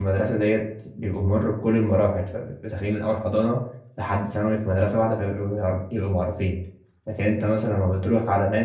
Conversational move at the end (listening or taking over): listening